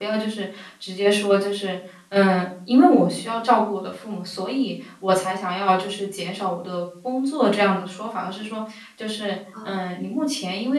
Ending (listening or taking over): listening